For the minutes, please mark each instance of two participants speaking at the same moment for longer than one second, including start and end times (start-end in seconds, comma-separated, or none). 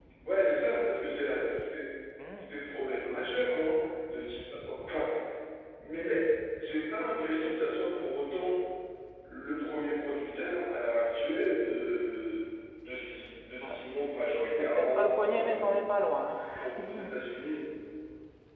14.4-15.6